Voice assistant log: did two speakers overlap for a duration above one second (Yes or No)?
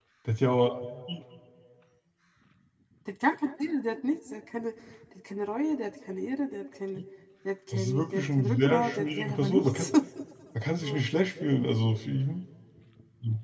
Yes